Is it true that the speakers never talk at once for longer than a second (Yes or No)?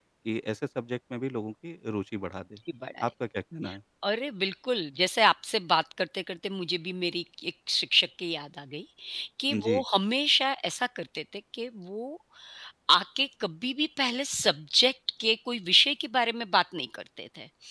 Yes